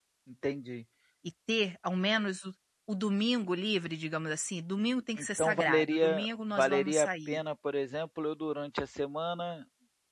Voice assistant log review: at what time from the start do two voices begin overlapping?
5.2 s

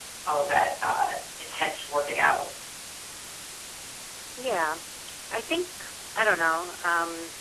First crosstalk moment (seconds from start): none

